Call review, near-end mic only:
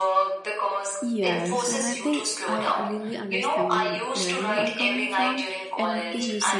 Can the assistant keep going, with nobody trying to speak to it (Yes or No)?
No